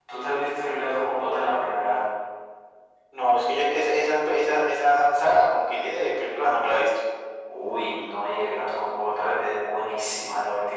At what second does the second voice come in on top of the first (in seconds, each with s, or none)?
none